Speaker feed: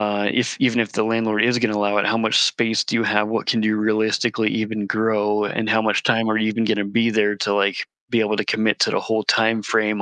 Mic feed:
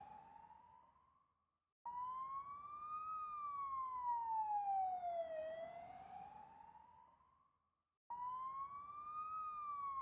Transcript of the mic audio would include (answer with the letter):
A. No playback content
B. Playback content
A